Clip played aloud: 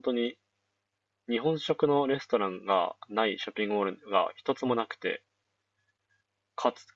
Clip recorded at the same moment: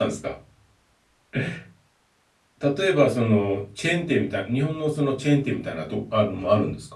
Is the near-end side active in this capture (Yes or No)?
Yes